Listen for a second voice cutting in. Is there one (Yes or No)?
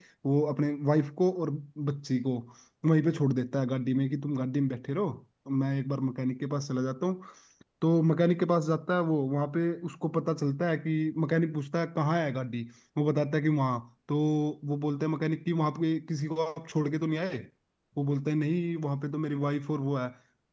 No